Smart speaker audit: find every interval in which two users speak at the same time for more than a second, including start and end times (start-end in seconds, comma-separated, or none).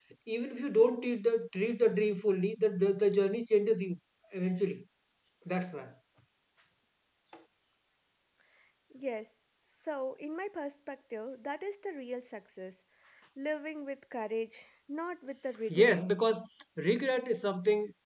none